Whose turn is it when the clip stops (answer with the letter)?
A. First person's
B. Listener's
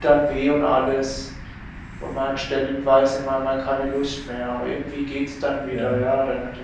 A